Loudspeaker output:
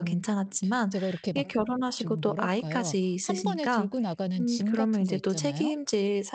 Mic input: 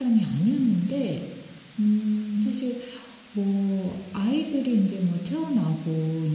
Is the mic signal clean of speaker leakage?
Yes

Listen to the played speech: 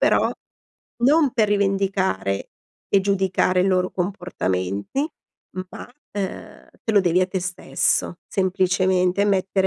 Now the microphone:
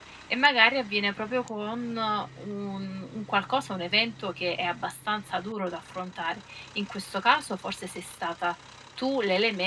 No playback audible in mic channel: Yes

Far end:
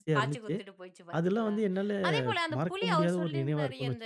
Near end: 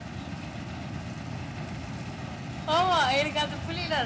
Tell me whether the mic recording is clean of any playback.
Yes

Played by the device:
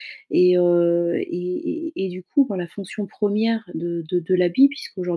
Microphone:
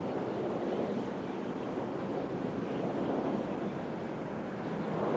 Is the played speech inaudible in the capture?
Yes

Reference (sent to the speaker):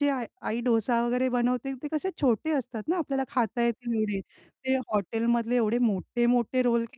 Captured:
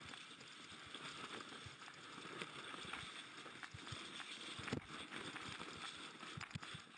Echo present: No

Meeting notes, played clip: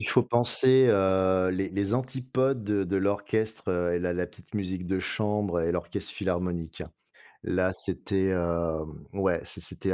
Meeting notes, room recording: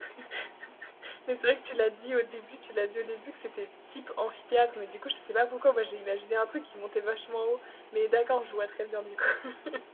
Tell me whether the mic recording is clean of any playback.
Yes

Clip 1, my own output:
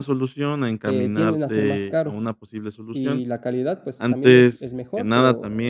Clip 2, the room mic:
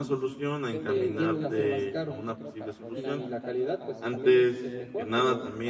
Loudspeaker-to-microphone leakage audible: Yes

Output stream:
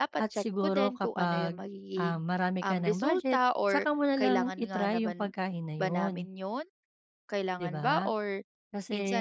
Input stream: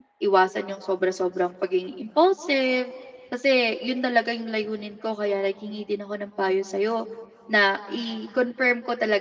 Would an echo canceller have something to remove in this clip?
No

